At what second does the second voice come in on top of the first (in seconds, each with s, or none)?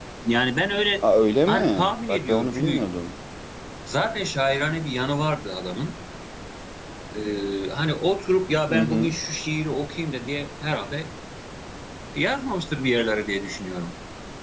1.5 s